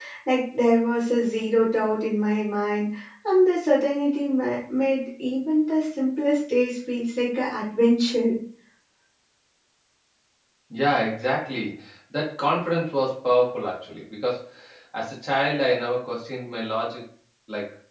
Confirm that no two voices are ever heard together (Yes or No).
Yes